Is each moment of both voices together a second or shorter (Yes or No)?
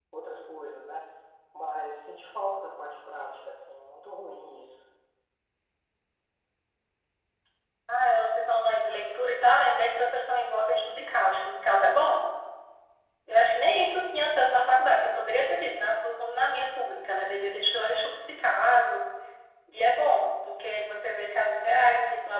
Yes